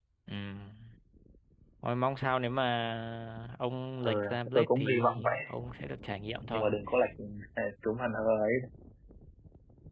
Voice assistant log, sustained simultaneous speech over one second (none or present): present